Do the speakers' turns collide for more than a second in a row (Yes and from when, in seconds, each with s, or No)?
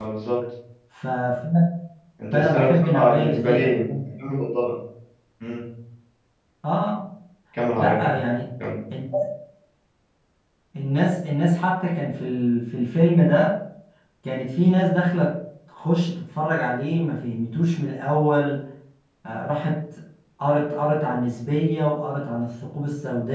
Yes, from 2.3 s